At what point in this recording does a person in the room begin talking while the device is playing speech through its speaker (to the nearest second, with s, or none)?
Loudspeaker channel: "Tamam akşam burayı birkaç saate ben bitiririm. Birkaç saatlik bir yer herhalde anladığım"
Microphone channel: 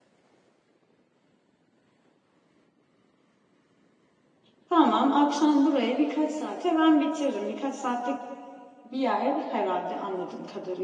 none